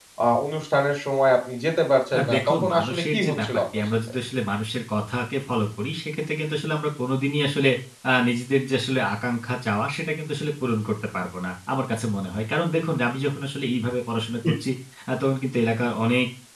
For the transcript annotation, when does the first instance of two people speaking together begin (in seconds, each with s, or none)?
2.1 s